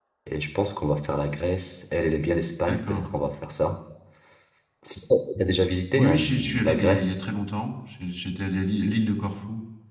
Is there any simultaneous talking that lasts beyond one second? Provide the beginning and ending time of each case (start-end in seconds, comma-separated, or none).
6.0-7.2